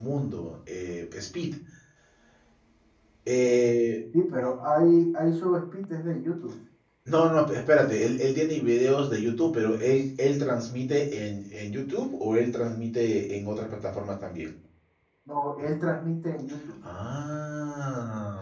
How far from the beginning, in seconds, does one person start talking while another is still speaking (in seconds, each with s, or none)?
none